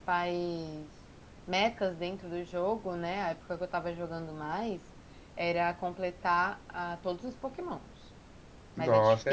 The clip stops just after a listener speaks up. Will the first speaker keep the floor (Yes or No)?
No